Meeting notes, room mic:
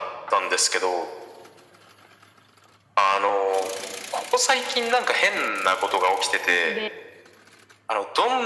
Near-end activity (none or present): present